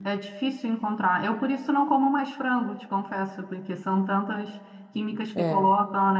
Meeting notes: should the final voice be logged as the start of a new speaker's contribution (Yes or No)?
No